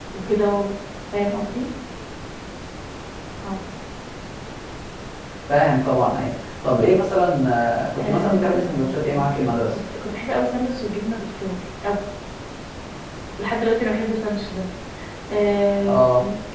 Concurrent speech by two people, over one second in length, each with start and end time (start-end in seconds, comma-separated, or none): 8.0-9.6